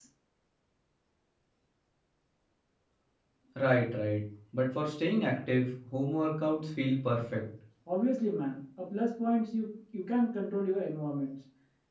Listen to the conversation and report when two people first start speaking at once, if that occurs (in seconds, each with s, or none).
none